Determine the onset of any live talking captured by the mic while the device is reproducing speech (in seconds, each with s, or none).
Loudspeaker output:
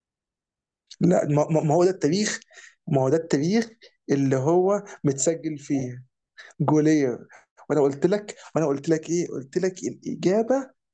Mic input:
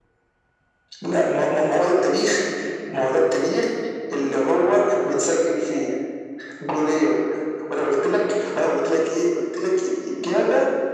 none